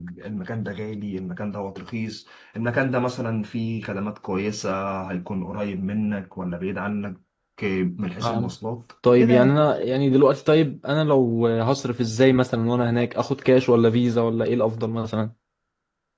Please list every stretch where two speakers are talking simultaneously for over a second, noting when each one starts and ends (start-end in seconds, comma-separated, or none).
none